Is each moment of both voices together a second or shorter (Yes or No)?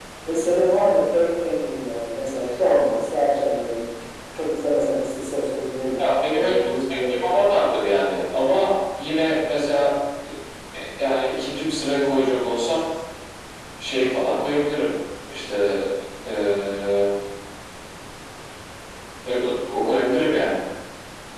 No